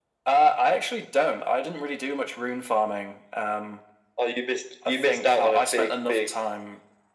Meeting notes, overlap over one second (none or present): present